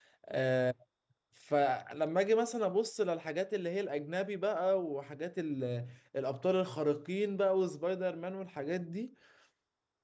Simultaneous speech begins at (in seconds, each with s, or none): none